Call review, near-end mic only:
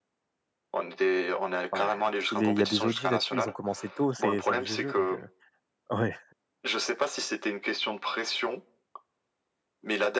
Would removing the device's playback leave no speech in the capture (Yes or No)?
No